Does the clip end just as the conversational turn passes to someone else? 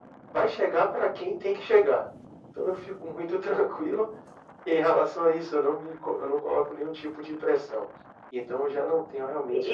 Yes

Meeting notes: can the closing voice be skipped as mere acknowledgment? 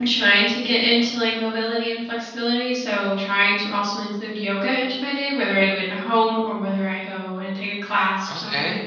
No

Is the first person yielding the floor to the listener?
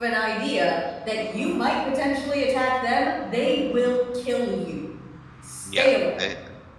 Yes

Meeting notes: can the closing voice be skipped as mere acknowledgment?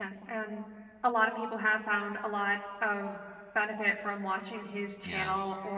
Yes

